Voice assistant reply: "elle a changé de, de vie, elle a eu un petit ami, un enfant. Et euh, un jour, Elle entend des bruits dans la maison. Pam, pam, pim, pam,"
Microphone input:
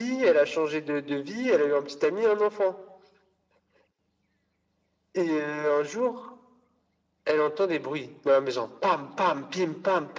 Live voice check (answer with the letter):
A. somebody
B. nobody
B